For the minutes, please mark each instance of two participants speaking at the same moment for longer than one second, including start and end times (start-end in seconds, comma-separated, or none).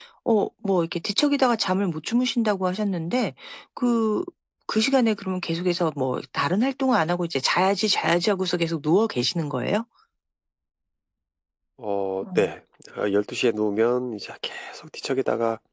none